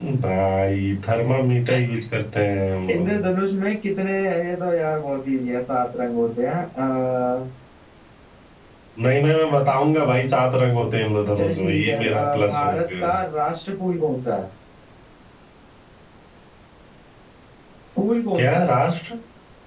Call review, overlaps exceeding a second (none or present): present